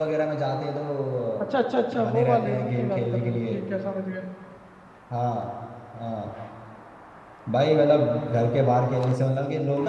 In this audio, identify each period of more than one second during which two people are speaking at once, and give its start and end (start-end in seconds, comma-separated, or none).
2.0-3.6